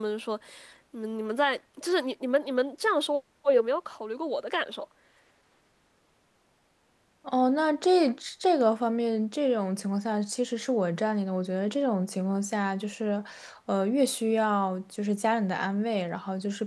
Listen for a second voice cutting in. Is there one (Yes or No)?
No